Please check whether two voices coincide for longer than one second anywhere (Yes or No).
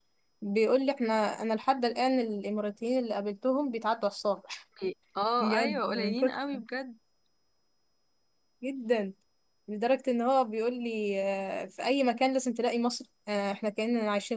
Yes